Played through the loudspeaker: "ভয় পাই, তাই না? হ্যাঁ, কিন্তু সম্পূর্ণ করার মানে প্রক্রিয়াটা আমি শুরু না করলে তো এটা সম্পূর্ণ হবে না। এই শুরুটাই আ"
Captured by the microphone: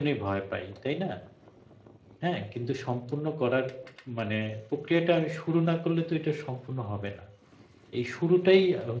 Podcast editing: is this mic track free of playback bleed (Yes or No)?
No